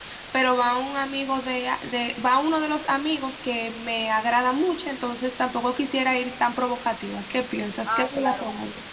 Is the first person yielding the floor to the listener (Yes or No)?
Yes